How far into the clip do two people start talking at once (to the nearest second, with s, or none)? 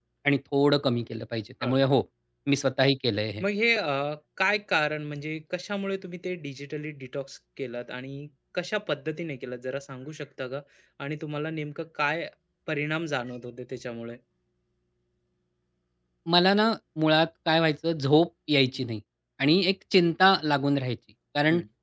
none